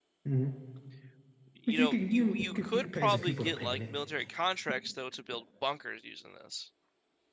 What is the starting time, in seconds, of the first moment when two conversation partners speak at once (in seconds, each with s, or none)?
1.7 s